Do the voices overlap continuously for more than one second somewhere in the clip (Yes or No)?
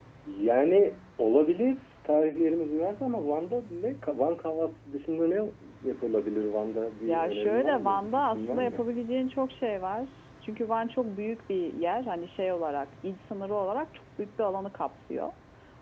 Yes